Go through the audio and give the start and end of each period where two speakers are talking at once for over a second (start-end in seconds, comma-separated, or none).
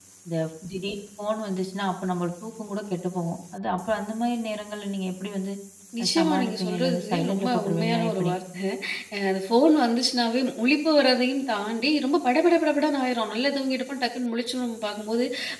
6.0-8.3